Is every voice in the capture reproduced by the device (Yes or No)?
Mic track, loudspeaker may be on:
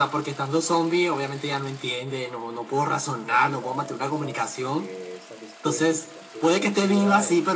No